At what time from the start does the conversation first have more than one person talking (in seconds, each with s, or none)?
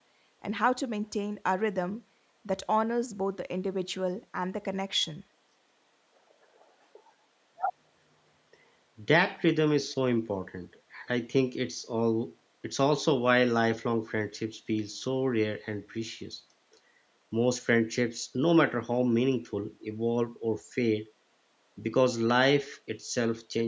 none